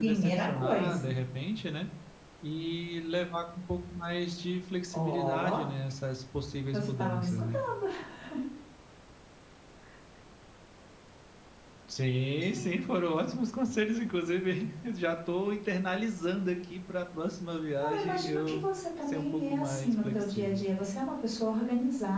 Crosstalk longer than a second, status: present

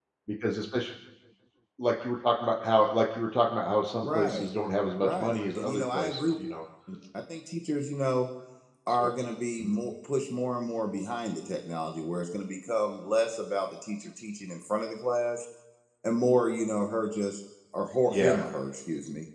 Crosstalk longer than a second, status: present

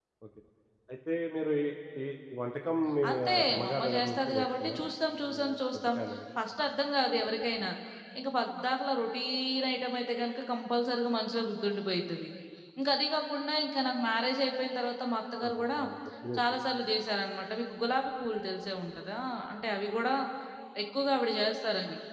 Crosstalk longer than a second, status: present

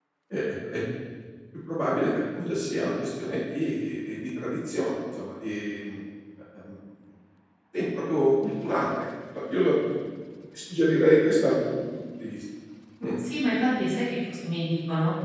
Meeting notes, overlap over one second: none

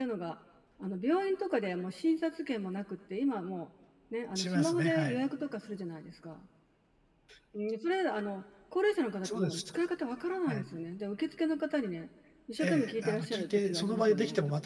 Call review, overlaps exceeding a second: present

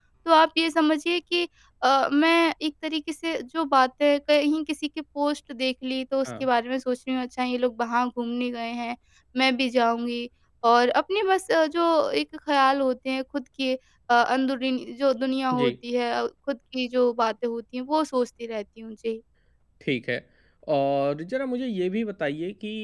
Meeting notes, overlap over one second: none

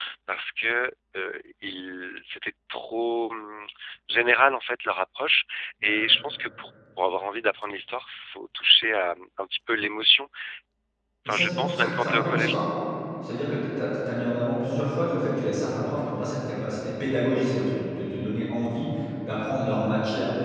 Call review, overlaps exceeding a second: present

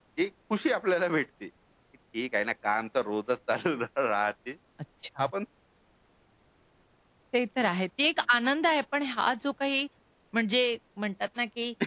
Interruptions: none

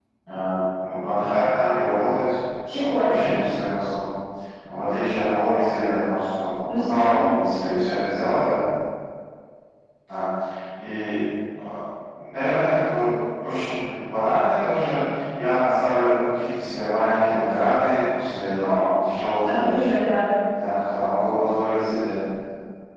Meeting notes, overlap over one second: none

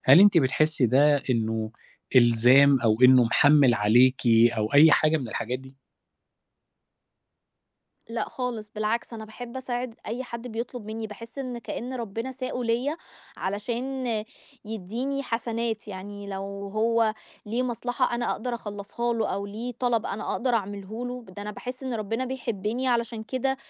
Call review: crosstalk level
none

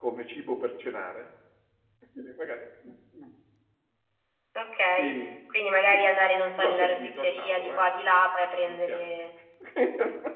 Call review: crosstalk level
present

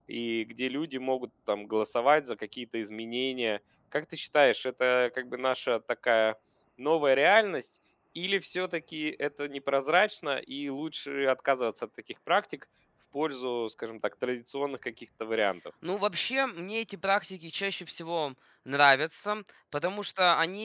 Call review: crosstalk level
none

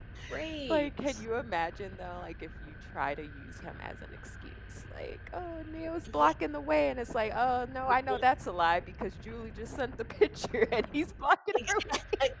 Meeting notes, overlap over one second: none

